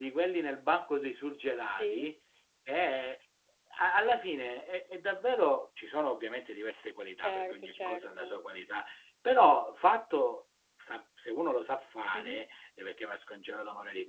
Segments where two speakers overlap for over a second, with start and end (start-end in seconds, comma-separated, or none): 7.2-8.4